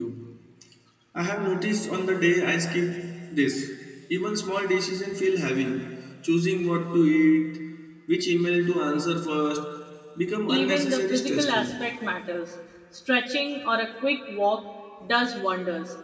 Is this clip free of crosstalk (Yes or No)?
No